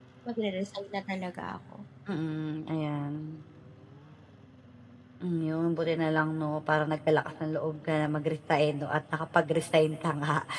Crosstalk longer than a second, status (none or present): none